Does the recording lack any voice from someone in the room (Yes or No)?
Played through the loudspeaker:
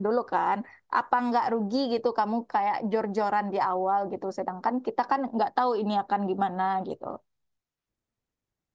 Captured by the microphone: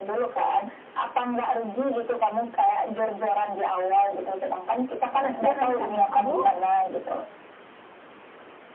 No